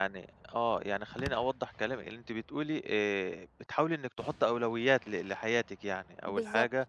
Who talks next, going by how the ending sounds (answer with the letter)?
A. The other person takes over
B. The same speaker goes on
B